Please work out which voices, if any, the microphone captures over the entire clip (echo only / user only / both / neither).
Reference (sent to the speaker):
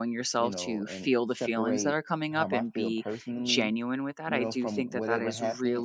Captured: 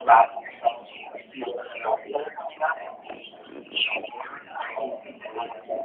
echo only